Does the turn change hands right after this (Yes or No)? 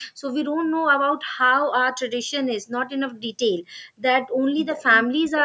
No